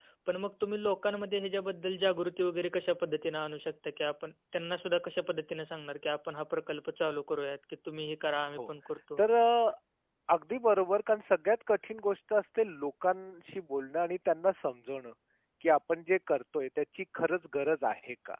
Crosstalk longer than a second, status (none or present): none